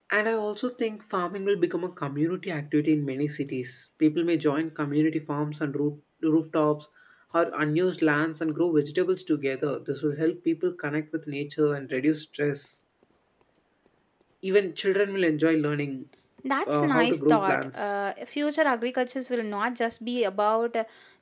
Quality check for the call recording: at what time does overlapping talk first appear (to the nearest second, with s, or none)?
17 s